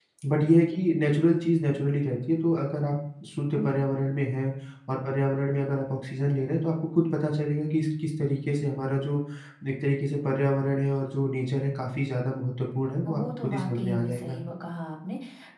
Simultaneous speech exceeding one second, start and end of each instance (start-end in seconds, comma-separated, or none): 13.1-14.4